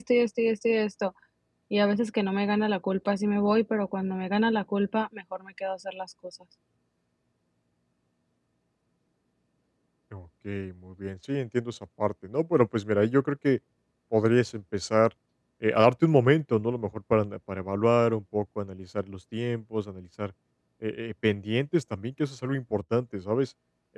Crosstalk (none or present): none